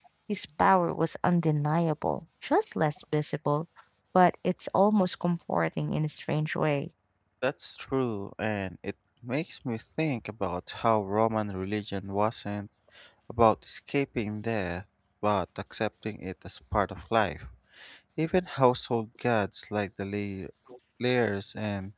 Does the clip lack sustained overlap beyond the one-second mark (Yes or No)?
Yes